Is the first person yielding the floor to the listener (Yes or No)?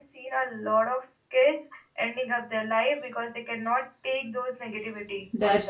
Yes